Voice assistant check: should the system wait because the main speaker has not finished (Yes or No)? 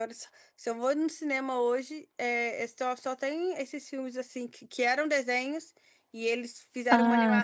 Yes